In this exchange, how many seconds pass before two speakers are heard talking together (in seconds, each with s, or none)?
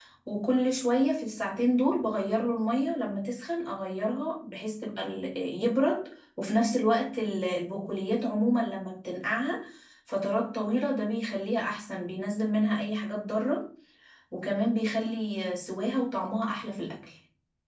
none